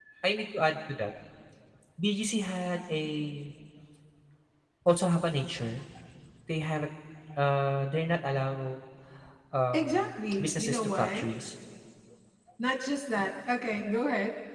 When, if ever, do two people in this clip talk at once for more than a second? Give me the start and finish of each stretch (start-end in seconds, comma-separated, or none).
9.7-11.3